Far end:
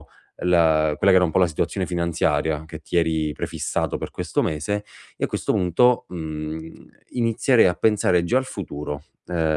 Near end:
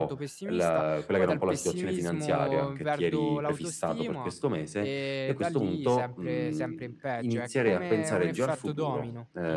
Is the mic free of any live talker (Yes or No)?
No